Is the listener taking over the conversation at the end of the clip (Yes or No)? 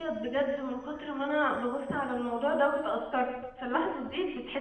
No